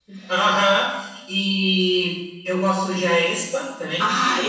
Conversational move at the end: taking over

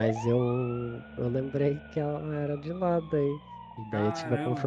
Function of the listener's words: listening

